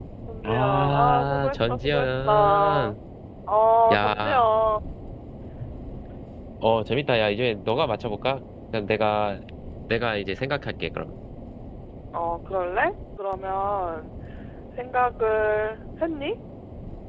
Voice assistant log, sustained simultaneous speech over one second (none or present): present